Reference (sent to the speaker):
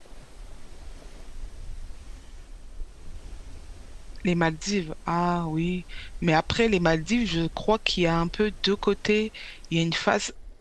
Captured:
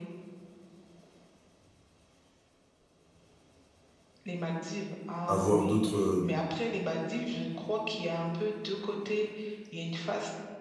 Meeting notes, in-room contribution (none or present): present